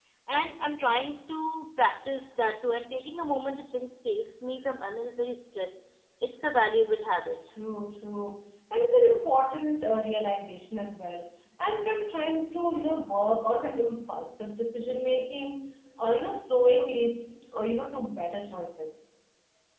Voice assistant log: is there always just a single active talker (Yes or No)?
Yes